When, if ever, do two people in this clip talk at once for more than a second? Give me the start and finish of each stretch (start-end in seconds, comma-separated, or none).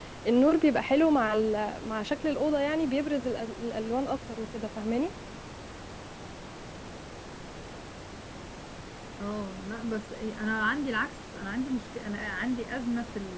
none